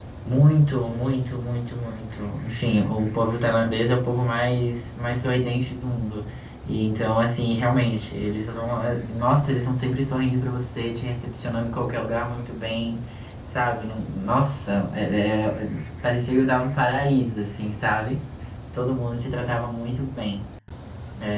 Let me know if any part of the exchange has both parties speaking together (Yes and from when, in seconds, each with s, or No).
No